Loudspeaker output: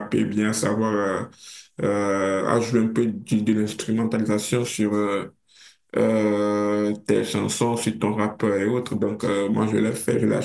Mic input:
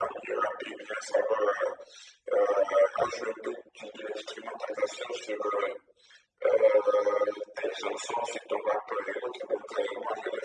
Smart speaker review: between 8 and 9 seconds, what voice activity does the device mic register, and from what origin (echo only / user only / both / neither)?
echo only